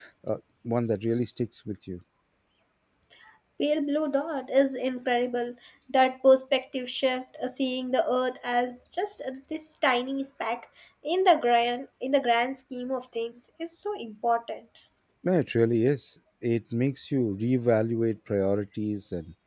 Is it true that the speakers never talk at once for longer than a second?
Yes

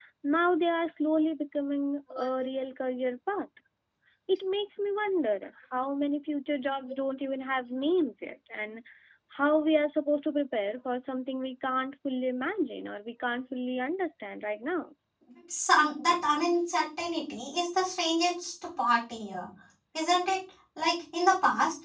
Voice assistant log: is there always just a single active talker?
Yes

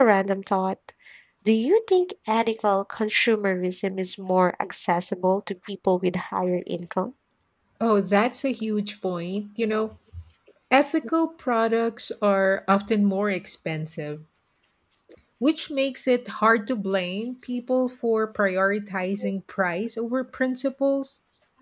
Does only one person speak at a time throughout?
Yes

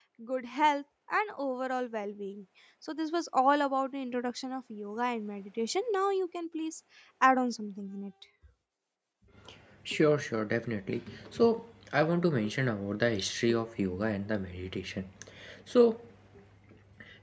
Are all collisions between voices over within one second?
Yes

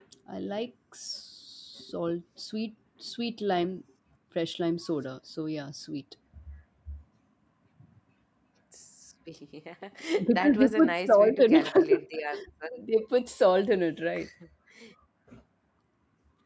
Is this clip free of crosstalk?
No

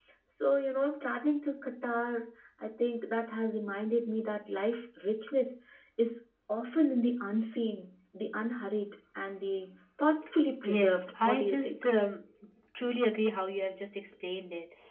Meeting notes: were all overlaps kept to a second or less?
No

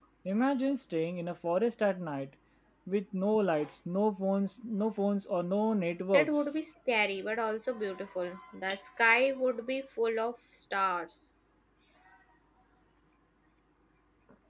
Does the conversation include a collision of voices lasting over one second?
No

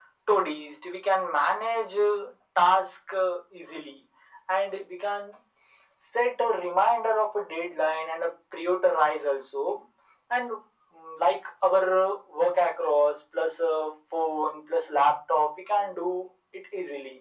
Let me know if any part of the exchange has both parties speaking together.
No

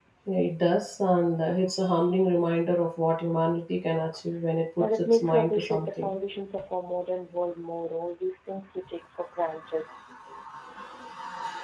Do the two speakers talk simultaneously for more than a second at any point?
Yes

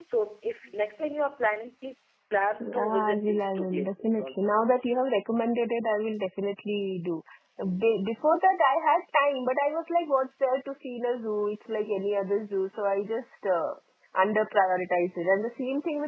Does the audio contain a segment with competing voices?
Yes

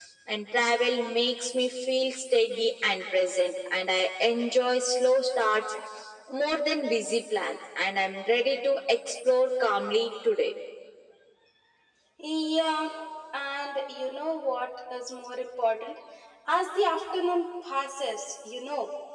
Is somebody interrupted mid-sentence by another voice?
No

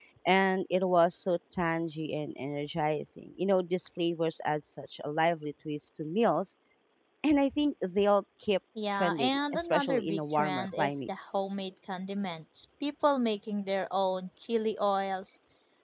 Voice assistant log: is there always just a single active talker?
No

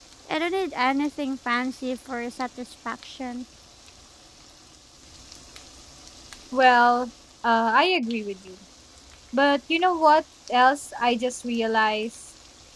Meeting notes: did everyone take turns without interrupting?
Yes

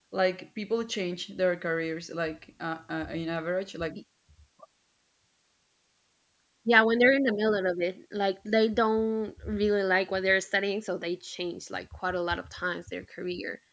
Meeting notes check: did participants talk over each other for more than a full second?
No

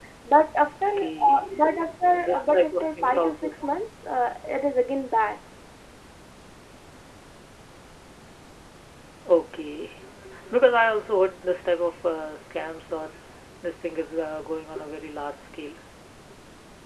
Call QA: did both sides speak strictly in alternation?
No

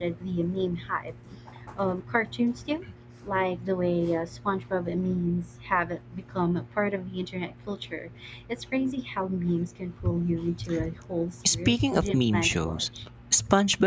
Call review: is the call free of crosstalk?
No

